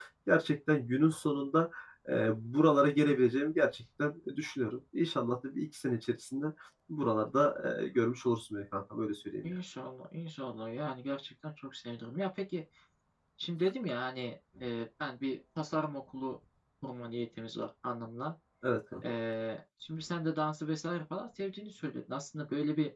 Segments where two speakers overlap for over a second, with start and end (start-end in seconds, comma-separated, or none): none